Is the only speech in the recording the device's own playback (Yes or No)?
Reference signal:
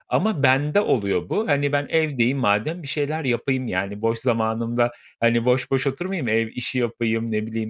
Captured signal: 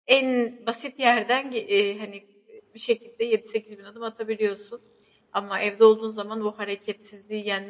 No